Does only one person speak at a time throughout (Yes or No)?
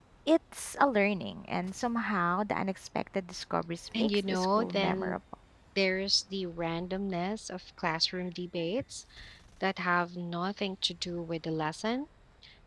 No